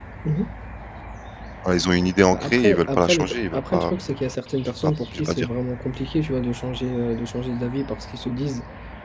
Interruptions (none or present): present